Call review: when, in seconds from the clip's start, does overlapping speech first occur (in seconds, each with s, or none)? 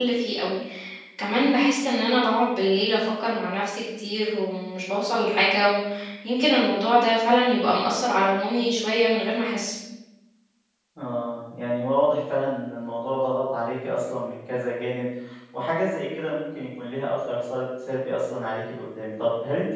none